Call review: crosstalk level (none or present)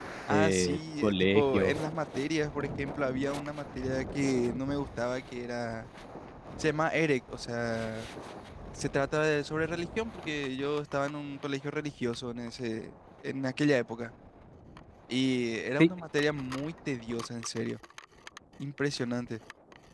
present